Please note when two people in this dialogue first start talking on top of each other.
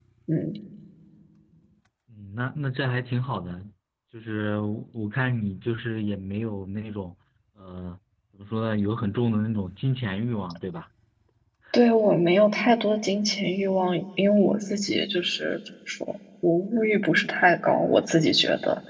none

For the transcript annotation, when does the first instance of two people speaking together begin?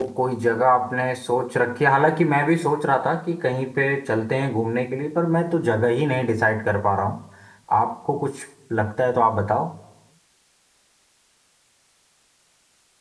none

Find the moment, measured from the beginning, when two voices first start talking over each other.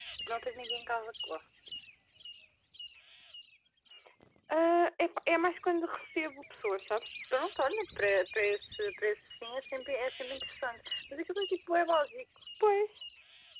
none

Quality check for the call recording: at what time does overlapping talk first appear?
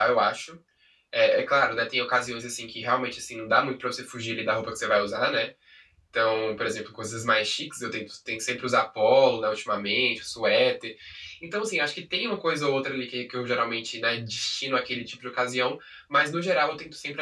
none

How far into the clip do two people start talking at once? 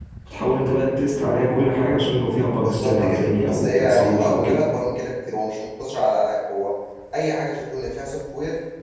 2.6 s

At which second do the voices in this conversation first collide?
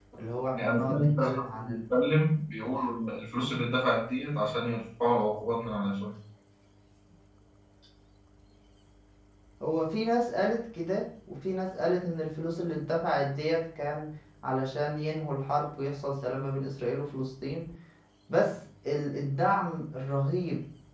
0.5 s

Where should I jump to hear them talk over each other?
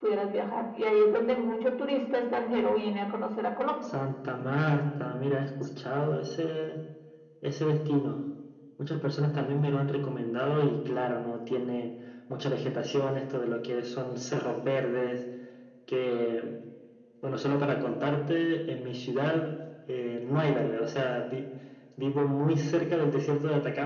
none

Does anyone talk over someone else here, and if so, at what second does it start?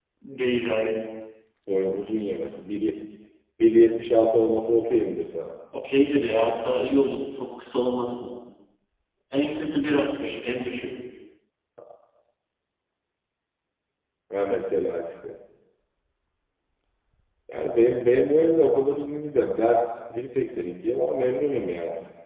none

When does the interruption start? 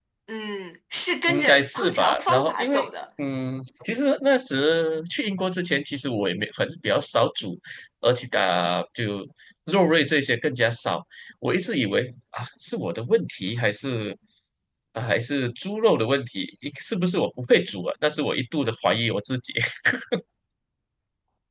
1.3 s

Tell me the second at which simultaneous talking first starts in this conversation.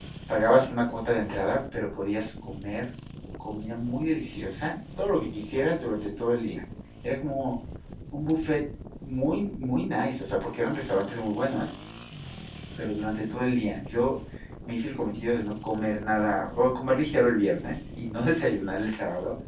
none

